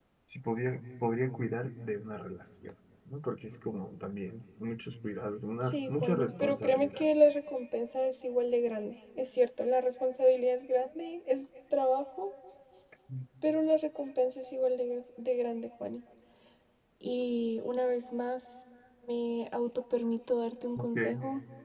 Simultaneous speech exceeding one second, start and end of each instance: 5.7-7.0

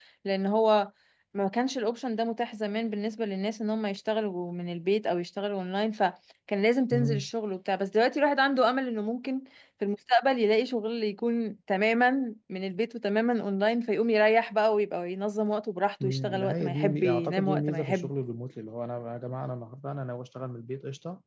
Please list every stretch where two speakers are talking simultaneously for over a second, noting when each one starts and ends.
16.0-18.1

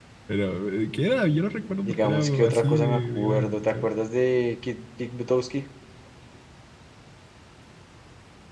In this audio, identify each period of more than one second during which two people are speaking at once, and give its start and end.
1.8-3.9

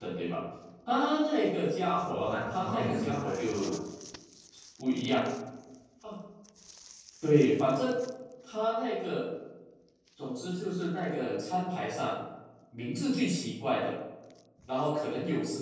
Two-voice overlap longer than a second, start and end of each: 2.2-3.7

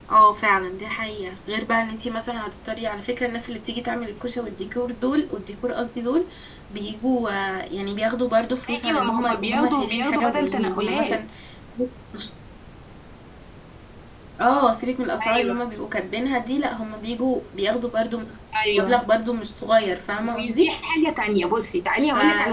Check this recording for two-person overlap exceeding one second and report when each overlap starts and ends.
8.8-11.2

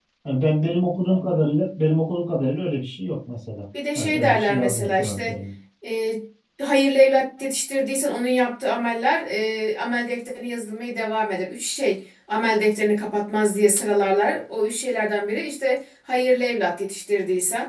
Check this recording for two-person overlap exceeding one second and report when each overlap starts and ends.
4.0-5.3

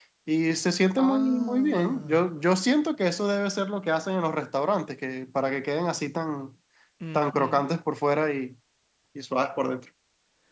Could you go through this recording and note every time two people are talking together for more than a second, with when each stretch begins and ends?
1.0-2.3

